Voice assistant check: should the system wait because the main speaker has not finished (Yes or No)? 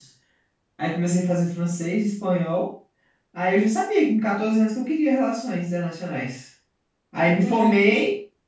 Yes